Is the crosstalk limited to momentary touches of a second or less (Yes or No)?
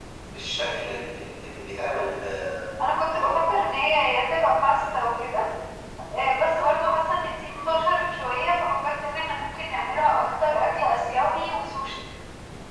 Yes